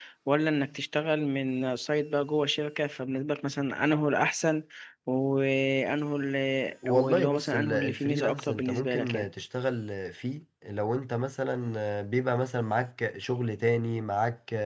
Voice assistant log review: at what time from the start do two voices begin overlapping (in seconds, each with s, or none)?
6.8 s